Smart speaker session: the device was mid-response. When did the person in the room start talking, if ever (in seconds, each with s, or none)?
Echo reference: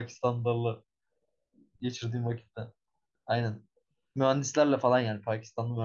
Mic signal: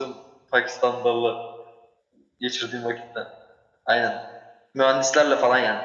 none